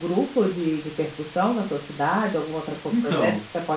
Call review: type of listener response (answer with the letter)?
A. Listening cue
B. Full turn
A